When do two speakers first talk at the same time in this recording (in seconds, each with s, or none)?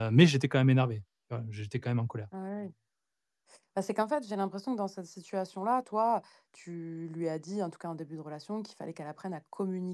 none